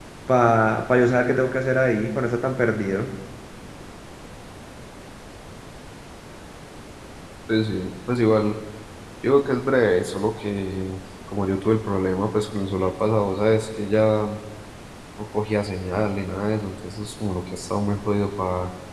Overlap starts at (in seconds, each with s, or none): none